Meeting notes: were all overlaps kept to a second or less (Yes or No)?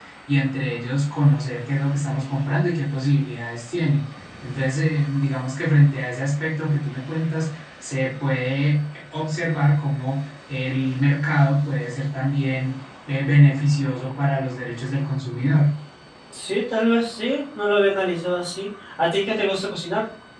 Yes